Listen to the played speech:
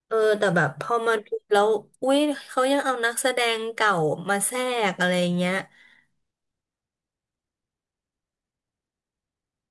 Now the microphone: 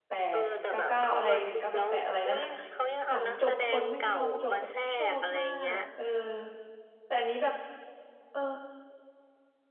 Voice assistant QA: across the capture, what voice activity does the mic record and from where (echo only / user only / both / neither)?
both